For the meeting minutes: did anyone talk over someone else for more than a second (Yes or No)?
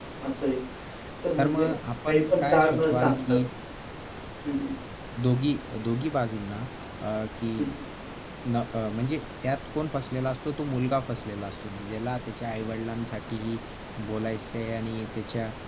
Yes